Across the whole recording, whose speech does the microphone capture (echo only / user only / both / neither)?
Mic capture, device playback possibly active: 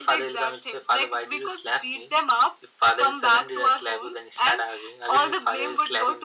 echo only